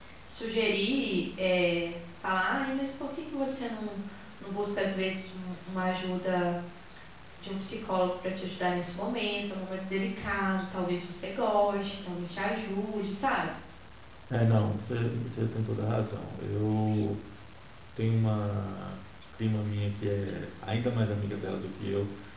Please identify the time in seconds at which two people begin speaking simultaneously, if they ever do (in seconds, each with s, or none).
none